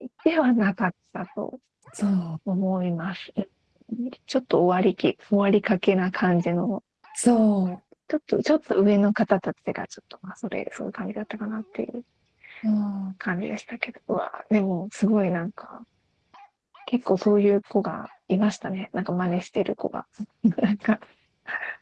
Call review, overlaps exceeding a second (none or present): none